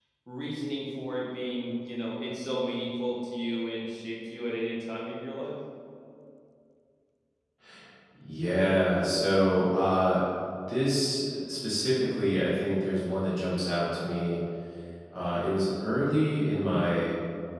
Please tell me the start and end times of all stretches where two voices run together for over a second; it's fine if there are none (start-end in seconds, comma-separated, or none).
none